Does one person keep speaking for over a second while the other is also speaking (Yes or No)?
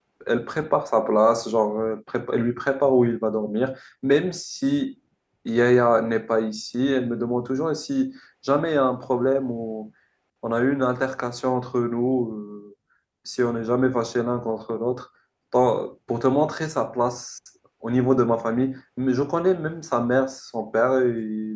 No